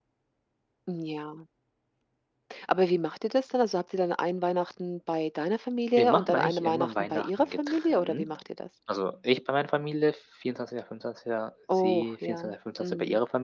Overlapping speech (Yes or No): Yes